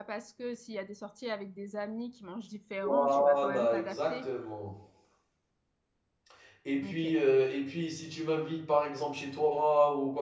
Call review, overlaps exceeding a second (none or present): present